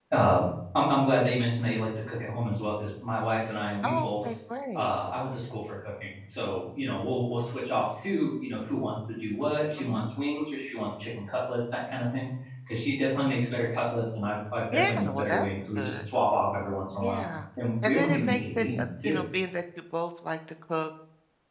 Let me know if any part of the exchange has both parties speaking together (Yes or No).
Yes